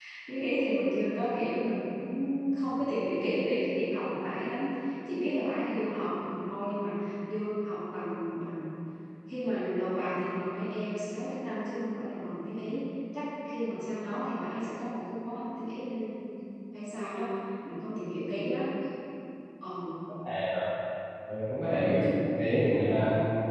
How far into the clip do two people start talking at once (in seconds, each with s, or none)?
none